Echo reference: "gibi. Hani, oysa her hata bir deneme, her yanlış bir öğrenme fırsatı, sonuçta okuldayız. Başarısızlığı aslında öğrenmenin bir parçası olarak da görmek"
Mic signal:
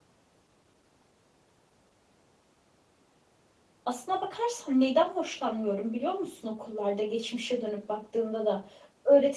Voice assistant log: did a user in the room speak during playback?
Yes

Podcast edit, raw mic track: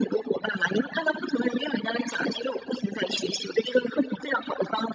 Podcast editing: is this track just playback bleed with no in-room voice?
Yes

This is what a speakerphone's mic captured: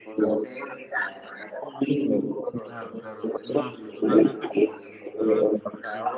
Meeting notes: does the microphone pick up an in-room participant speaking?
Yes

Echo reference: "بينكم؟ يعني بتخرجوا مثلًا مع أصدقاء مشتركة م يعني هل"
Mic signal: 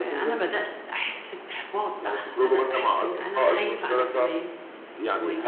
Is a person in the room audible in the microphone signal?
Yes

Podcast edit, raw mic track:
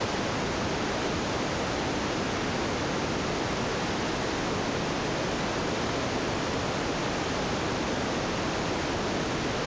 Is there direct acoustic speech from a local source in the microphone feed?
No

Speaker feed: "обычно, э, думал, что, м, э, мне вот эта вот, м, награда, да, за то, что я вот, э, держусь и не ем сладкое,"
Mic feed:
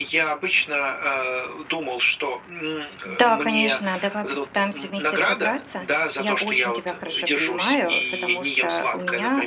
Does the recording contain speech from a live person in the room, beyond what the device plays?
Yes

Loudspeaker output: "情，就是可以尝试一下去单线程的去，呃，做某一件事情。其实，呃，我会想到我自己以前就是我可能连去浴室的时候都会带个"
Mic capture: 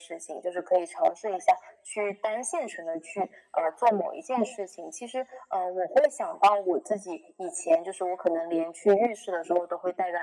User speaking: No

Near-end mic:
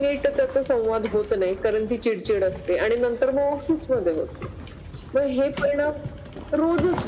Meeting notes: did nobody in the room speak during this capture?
Yes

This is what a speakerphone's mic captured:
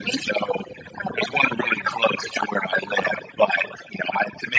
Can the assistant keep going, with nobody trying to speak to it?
Yes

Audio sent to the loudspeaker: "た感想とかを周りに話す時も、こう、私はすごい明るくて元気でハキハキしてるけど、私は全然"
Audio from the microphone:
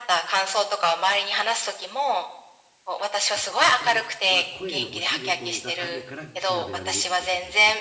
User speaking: Yes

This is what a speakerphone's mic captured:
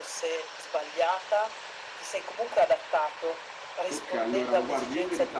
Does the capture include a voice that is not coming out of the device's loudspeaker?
Yes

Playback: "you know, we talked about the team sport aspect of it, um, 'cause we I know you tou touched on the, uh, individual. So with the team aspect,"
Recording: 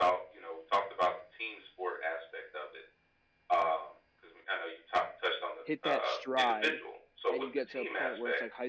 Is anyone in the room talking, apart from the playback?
Yes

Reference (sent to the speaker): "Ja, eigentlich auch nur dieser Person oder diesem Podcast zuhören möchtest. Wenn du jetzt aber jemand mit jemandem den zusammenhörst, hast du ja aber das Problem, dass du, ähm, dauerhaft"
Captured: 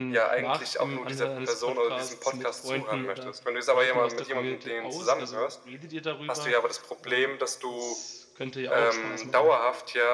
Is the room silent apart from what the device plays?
No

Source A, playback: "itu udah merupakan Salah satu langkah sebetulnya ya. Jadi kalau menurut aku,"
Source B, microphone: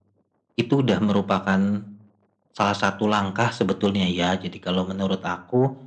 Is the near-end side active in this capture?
No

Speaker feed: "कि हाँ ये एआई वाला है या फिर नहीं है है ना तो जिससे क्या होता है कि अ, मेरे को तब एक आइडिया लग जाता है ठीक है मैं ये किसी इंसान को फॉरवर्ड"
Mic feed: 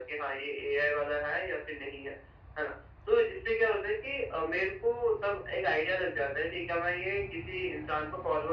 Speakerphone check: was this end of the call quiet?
Yes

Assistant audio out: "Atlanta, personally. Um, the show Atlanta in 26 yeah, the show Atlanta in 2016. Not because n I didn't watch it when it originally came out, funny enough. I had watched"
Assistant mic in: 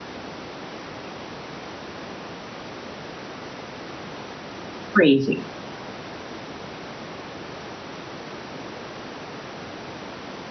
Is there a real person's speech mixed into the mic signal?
Yes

